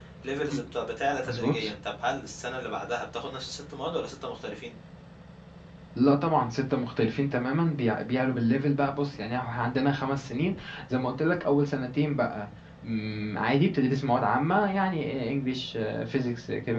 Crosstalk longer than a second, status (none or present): none